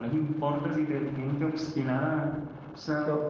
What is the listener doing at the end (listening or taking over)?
listening